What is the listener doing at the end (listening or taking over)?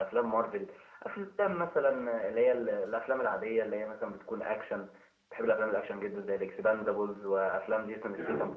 listening